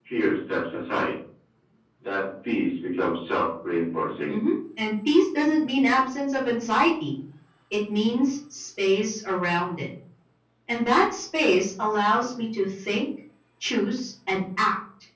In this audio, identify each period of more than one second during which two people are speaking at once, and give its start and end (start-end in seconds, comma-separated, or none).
none